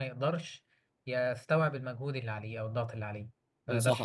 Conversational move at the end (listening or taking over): taking over